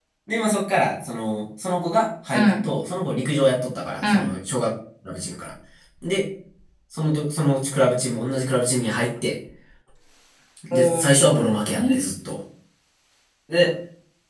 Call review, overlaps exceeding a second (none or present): present